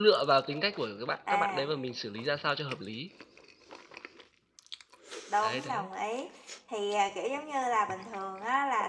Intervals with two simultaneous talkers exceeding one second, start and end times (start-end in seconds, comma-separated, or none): none